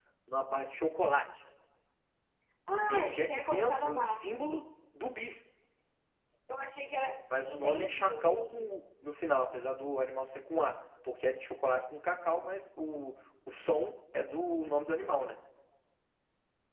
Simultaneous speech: Yes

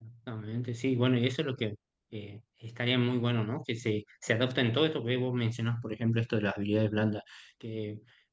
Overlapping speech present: No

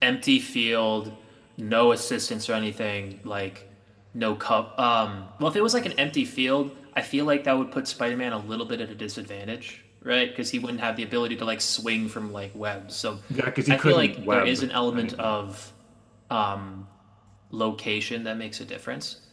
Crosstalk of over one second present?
Yes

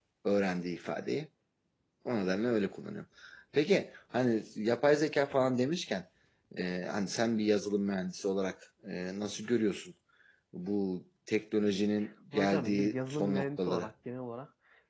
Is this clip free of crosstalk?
No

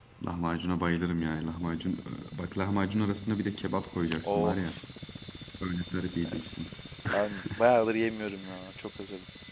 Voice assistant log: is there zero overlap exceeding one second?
Yes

